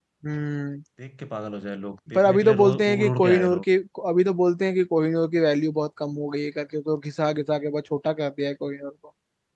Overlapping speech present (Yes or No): Yes